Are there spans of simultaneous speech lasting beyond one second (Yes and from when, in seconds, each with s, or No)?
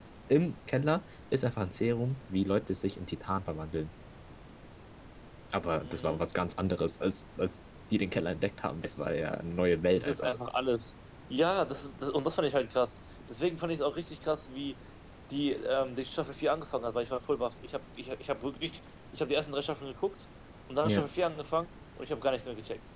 No